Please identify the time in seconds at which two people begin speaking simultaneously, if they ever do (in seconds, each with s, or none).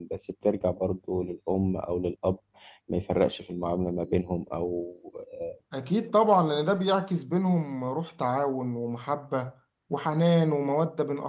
none